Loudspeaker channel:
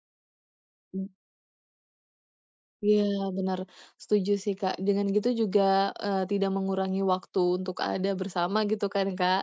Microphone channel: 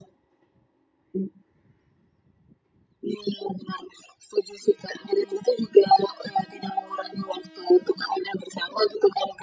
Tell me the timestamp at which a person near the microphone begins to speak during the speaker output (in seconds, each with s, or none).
none